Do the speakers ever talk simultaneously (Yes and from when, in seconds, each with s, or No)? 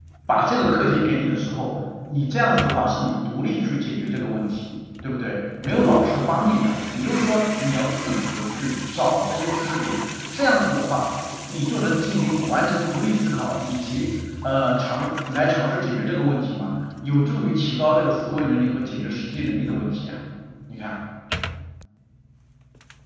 No